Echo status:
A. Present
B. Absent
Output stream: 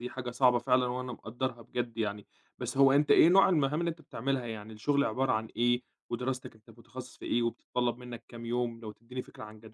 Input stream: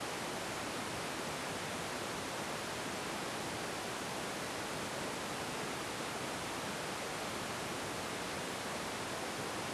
B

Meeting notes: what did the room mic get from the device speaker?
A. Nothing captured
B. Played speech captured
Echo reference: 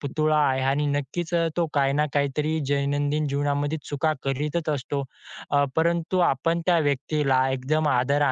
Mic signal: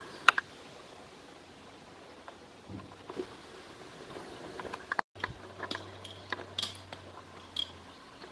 A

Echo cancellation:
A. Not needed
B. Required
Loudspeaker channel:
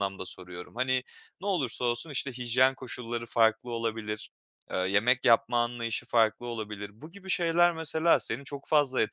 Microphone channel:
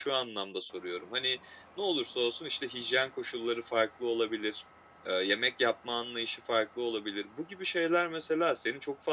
B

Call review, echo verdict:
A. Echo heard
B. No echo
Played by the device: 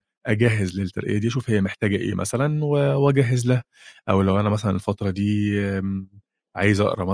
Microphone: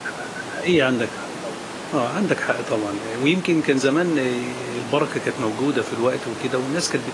B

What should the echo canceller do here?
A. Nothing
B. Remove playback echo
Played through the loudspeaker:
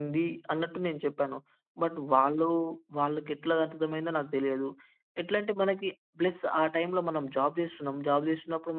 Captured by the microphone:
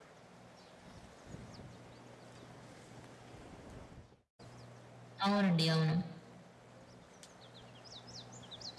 A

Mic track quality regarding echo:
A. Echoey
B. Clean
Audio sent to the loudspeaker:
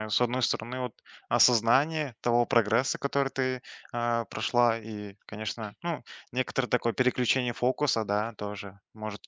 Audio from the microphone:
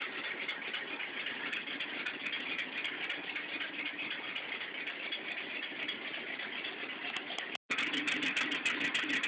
B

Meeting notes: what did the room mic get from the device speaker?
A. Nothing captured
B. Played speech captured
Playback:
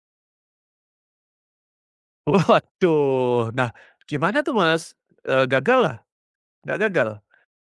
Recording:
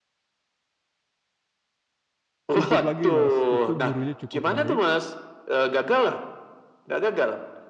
B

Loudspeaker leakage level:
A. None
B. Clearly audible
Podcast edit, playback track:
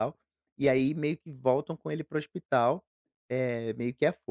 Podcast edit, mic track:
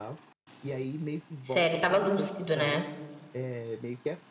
B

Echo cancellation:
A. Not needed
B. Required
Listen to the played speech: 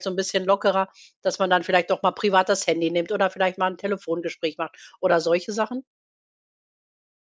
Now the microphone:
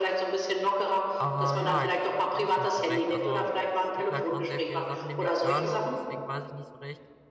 B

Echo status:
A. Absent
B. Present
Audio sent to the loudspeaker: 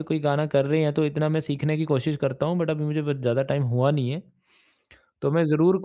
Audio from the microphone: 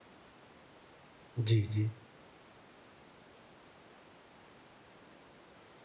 A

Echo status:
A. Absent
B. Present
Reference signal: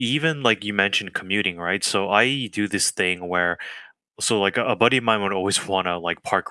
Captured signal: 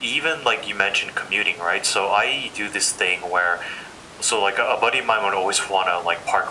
B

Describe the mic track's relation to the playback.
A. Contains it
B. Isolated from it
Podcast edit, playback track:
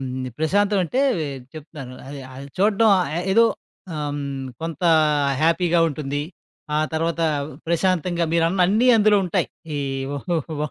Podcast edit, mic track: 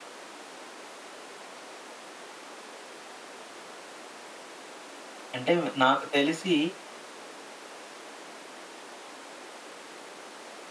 B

